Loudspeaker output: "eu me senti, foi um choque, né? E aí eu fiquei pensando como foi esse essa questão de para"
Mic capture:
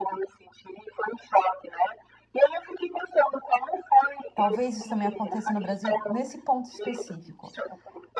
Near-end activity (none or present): present